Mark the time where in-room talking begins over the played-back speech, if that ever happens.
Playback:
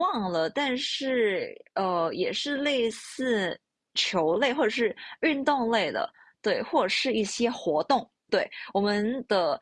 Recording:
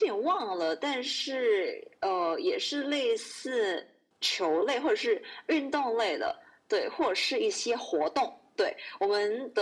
none

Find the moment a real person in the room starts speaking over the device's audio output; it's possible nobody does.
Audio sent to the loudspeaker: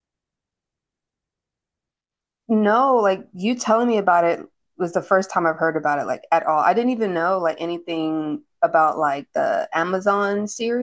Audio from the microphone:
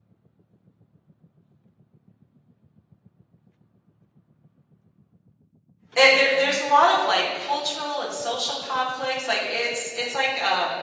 6 s

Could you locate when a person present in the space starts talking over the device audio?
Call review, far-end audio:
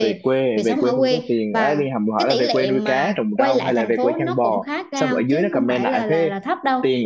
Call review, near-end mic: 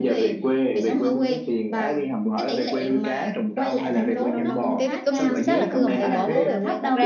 4 s

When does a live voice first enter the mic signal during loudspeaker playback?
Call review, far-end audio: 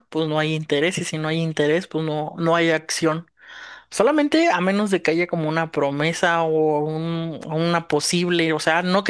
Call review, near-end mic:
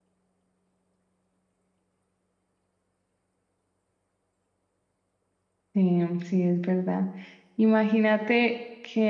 6 s

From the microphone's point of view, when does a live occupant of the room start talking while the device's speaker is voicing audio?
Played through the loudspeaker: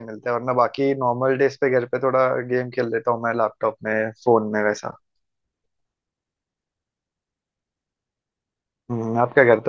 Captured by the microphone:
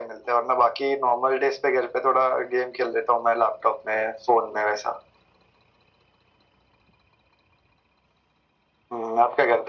none

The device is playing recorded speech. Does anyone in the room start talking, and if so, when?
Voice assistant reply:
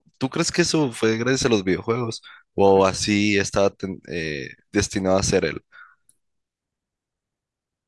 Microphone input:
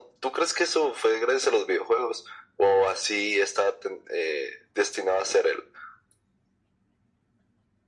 none

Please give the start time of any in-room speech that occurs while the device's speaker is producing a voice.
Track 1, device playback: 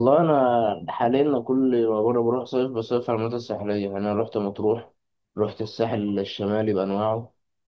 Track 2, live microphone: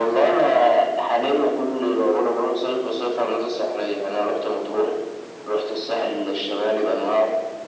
1 s

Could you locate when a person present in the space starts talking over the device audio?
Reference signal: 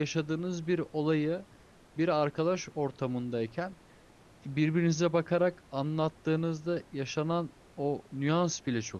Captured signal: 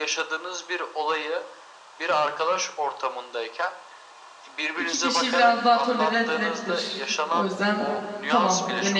5 s

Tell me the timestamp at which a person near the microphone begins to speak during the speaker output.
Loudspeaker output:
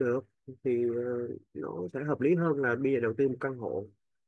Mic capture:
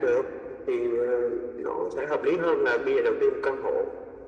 none

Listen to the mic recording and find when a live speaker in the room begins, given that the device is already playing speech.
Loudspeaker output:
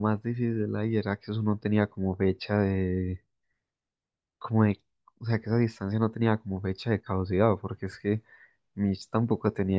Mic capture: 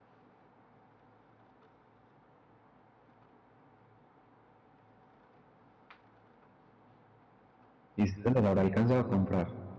8 s

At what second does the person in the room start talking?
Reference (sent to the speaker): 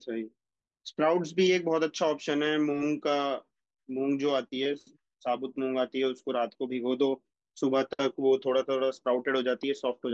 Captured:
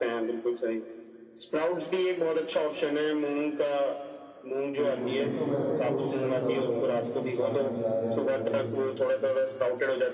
5 s

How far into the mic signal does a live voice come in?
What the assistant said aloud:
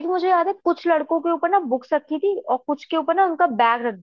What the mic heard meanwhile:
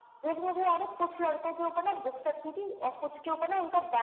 none

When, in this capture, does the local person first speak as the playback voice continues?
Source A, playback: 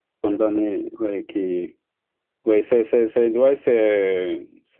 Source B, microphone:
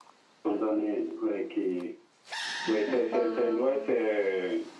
3 s

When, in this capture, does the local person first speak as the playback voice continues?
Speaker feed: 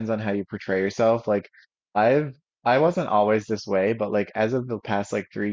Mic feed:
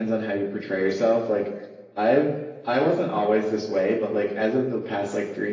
none

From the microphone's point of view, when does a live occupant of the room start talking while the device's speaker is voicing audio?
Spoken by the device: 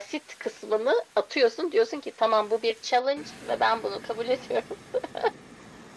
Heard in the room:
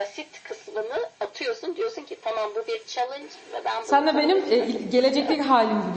4 s

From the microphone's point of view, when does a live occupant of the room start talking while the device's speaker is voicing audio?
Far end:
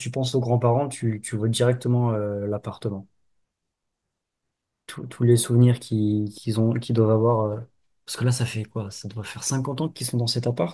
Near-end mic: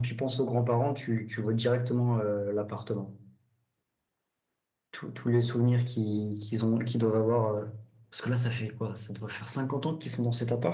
none

